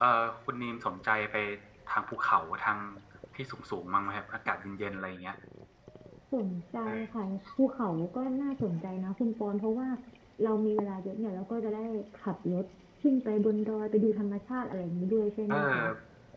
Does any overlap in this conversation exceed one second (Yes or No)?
No